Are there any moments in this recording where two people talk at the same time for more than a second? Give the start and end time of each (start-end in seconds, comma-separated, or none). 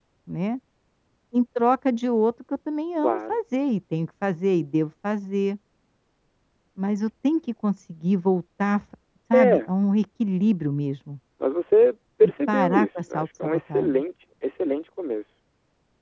12.2-14.0